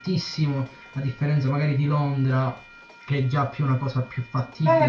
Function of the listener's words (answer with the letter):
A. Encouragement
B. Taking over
B